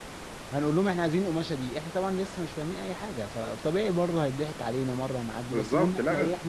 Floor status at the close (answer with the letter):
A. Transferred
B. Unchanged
B